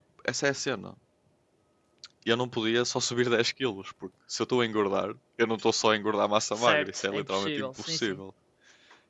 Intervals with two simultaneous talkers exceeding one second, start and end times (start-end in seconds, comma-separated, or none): 6.5-8.2